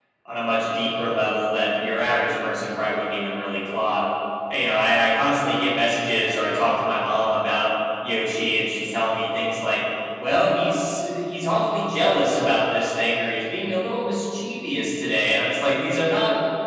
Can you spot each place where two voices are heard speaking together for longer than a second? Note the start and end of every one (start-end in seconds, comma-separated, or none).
none